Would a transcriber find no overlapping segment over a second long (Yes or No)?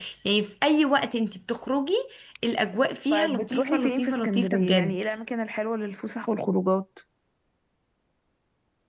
No